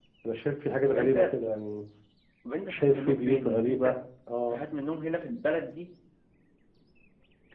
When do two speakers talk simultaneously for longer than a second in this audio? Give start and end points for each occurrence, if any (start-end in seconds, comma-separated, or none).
2.7-3.9